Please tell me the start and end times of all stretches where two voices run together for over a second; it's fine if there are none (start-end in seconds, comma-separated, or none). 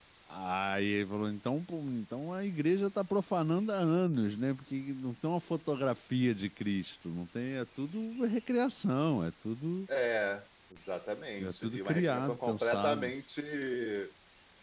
11.4-13.1